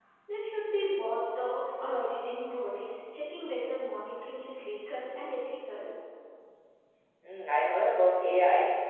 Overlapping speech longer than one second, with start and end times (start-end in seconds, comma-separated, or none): none